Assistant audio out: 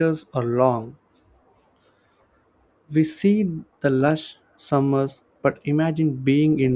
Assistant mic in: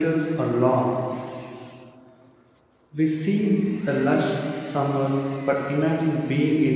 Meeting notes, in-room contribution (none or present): none